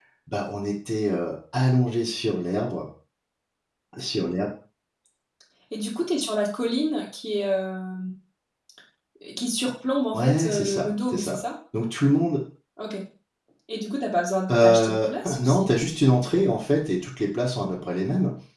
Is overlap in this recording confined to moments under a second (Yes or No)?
No